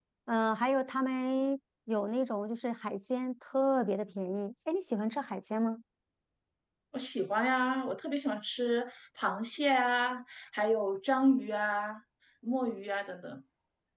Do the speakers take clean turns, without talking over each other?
Yes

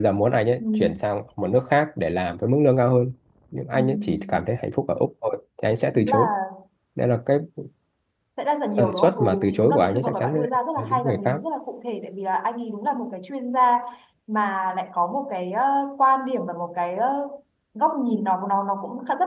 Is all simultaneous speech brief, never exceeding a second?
No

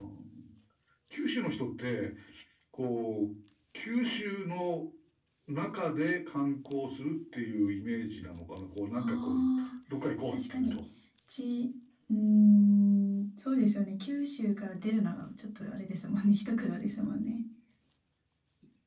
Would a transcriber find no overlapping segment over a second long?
Yes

